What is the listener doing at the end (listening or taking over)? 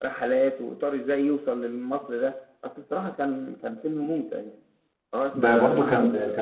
taking over